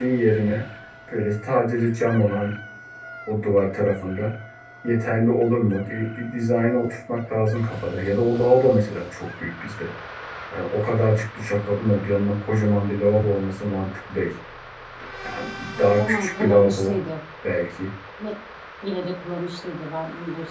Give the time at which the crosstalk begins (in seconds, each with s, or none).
15.8 s